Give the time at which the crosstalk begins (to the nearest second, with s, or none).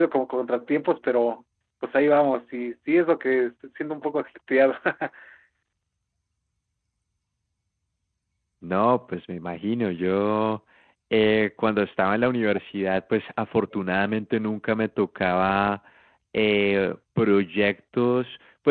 none